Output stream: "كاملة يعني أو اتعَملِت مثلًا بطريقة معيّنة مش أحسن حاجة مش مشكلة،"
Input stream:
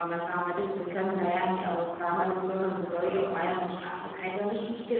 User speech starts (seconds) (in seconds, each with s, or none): none